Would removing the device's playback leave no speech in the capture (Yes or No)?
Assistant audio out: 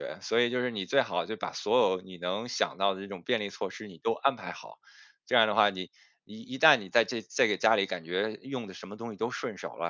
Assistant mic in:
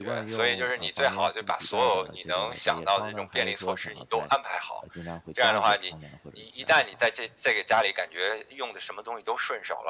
No